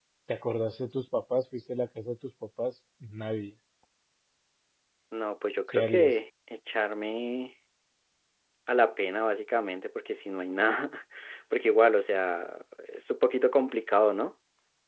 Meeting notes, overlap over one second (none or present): none